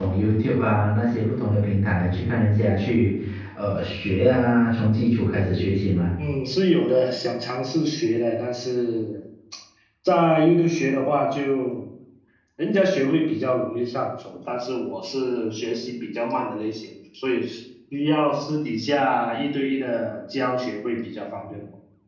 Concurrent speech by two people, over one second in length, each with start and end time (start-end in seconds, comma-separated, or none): none